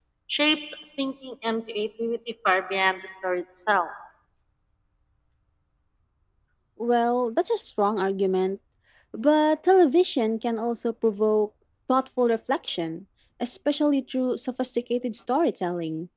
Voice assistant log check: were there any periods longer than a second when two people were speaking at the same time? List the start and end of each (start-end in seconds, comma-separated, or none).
none